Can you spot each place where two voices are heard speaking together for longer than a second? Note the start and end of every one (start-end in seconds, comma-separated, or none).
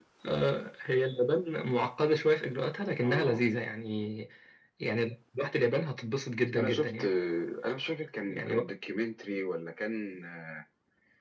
none